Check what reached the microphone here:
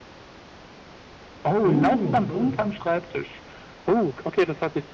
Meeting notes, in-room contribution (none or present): present